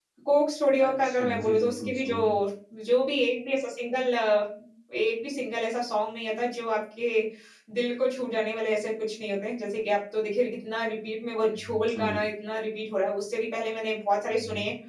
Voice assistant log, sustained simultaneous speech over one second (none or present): present